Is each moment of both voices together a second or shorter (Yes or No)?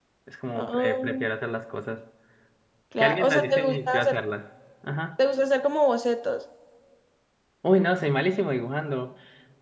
No